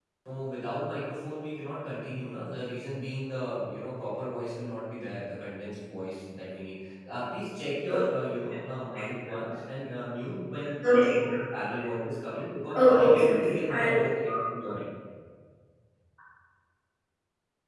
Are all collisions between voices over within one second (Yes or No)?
No